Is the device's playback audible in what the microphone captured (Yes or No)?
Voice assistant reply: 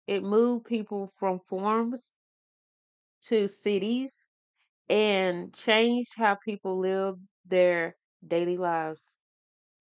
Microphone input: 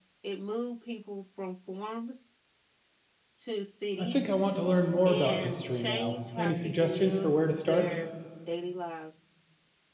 Yes